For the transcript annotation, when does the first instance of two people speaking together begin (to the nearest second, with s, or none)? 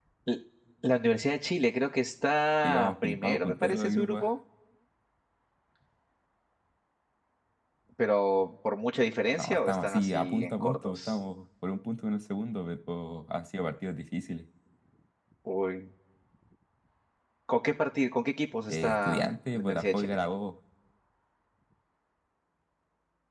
3 s